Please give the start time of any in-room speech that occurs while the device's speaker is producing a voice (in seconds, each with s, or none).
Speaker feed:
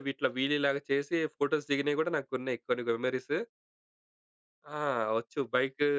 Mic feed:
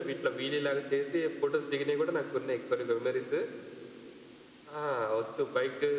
none